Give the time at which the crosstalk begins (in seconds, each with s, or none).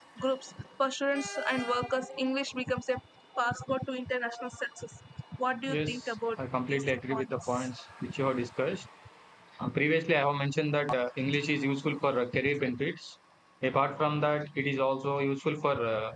5.7 s